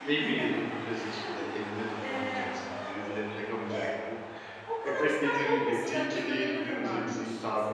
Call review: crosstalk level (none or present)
present